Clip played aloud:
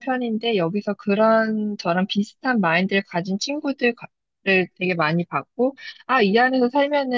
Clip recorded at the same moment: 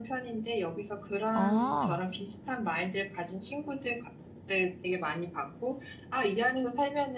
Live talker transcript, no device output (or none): 어,